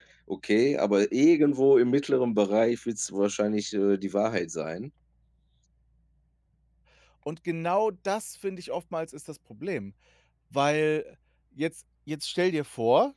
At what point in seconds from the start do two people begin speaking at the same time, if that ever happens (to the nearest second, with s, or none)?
none